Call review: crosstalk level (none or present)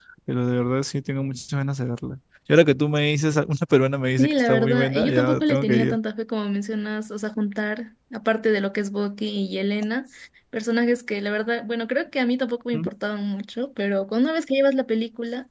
present